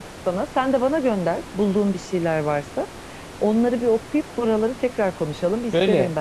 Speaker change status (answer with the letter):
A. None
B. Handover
B